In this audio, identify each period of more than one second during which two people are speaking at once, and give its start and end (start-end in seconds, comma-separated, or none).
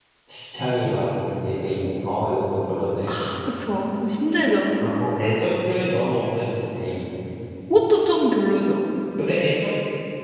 none